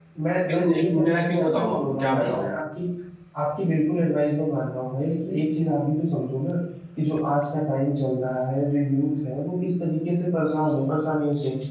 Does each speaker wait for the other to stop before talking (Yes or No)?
No